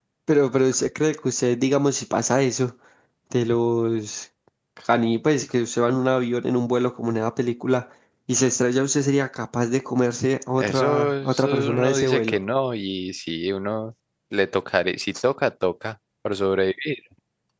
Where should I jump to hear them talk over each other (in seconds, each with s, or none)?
10.6 s